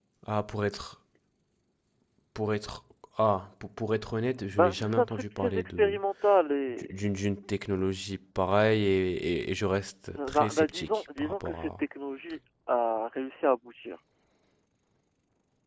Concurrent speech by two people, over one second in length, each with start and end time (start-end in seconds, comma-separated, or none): 4.5-6.0, 10.1-11.8